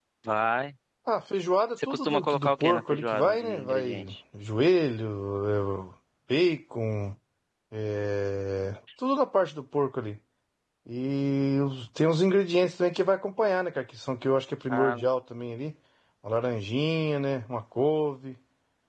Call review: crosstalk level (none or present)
present